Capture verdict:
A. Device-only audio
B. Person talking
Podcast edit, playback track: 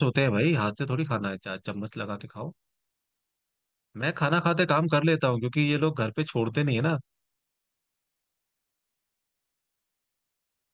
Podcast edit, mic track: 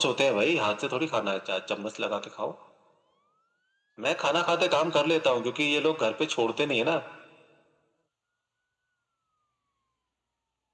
A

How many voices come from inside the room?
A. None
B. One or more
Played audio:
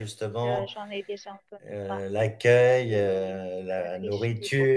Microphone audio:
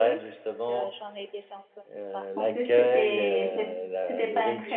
B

